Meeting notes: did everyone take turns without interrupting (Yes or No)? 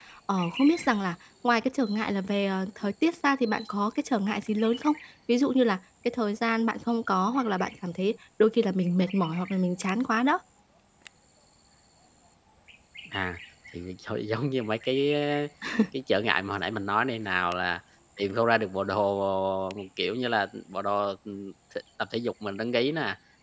Yes